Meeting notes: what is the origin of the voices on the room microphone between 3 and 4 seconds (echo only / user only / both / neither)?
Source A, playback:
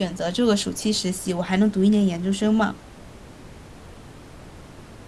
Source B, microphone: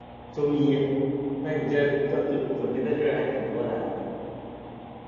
user only